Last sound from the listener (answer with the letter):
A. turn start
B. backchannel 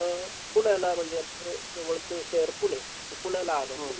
B